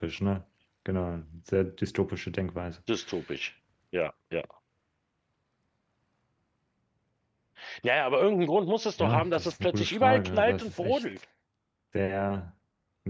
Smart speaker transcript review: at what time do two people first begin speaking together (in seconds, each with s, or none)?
9.0 s